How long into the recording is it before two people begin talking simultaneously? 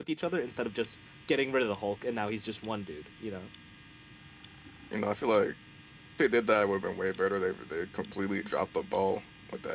none

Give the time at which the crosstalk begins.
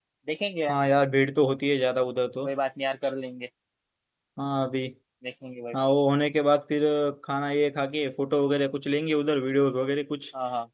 none

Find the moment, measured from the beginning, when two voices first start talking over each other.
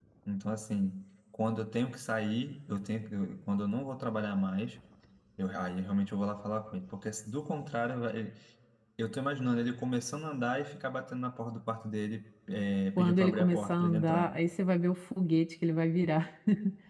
13.0 s

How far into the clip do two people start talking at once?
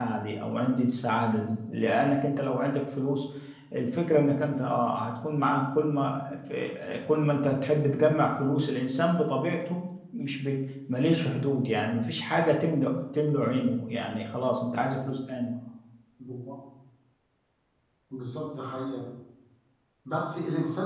none

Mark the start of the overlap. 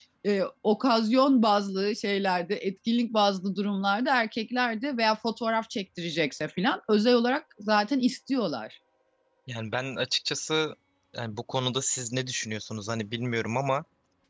none

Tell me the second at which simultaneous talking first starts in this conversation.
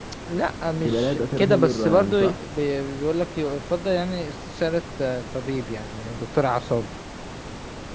0.8 s

